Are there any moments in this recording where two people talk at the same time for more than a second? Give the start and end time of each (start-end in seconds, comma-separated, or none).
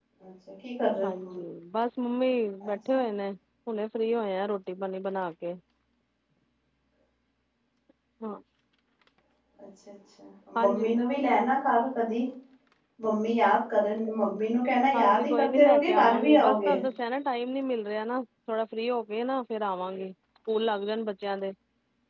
14.9-16.8